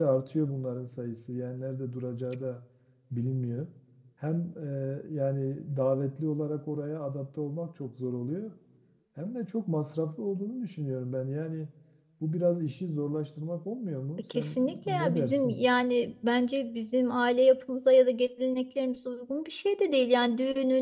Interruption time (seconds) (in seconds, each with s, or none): 14.3 s